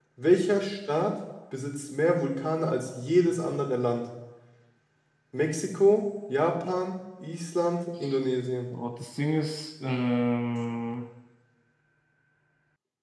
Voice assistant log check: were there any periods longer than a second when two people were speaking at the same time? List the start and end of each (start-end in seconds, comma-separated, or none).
none